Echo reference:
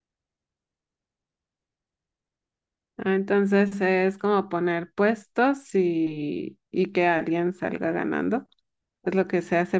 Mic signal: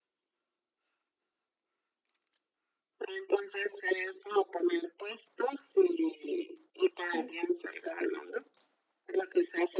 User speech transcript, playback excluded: Sí.

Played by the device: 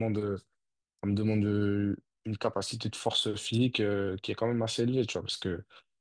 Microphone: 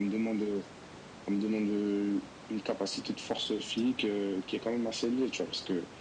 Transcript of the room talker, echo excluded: none

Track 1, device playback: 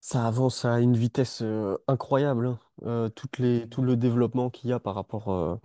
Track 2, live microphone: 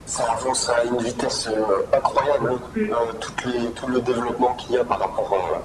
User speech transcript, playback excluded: elle te fait.

